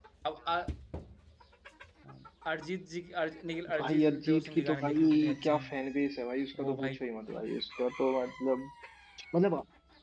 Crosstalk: present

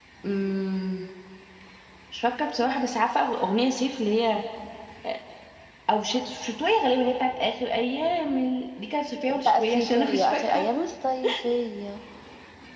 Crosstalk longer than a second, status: present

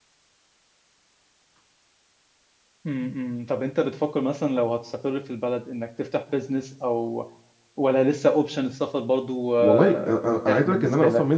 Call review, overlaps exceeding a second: present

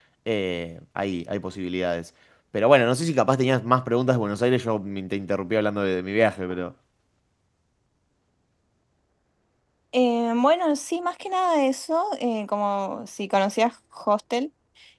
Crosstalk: none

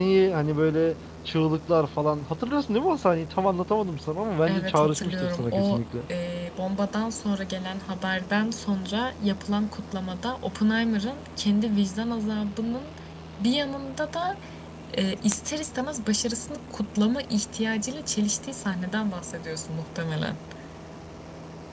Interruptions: present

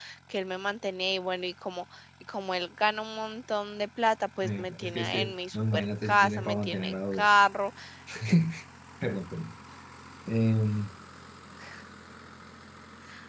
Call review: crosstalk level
present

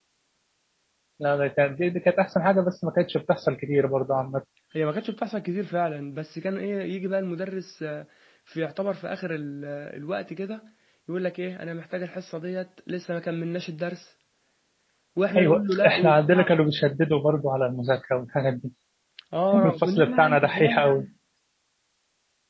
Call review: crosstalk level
present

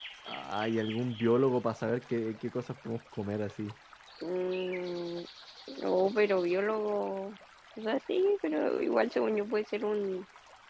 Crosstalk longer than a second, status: none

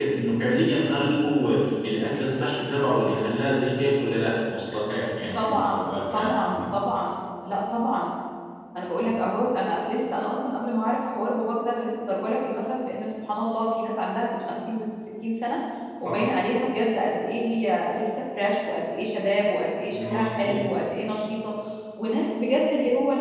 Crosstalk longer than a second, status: present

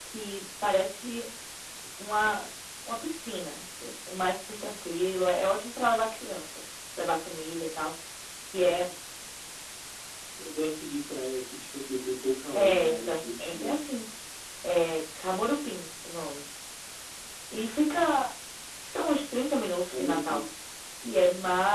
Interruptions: present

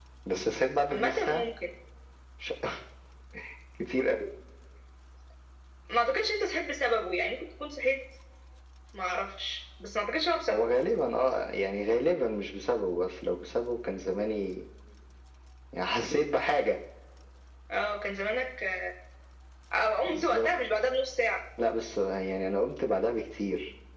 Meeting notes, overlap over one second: none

